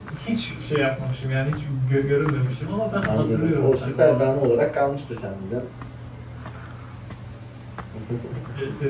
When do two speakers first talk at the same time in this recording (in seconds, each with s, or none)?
3.0 s